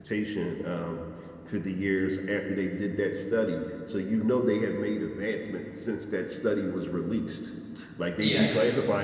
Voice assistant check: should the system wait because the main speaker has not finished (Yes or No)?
Yes